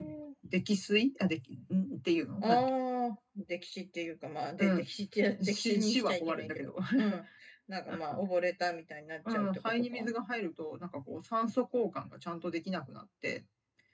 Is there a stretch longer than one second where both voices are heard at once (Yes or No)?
Yes